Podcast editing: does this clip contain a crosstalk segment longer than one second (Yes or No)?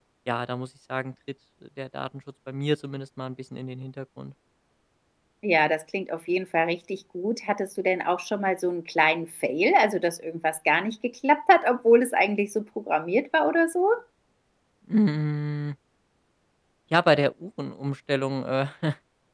No